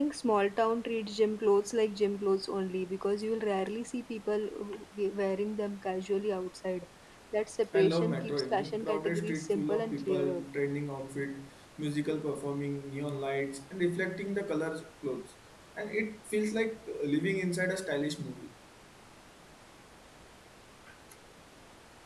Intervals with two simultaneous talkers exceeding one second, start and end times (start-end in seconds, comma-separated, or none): 7.7-10.4